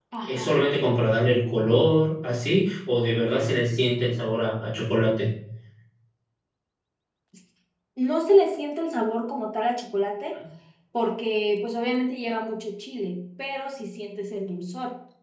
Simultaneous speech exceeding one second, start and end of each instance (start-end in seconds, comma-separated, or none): none